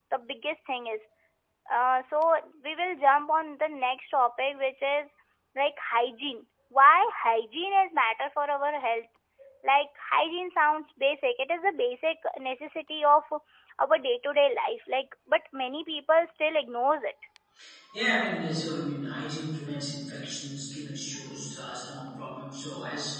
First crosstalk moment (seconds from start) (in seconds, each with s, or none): none